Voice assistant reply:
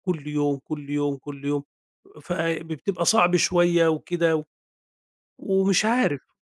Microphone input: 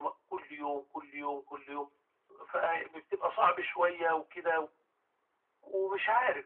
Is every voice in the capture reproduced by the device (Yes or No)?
Yes